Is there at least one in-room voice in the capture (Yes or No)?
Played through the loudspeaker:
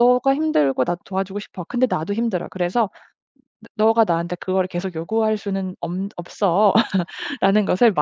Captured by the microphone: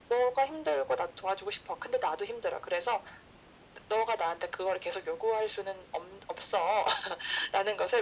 No